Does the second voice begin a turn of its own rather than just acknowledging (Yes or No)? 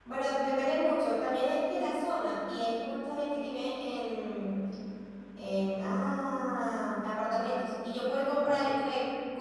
No